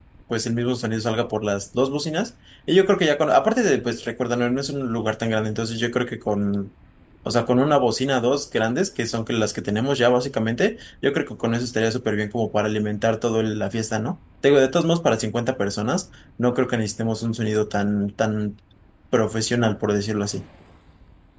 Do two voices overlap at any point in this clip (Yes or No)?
No